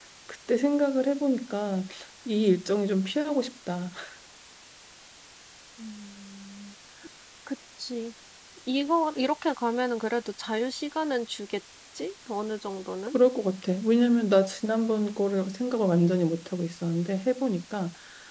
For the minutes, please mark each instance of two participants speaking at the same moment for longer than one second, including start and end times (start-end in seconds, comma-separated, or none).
none